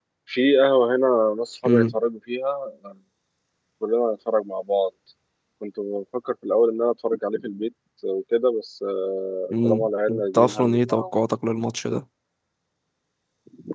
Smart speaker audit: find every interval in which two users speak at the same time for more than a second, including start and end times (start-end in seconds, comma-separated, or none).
9.5-11.0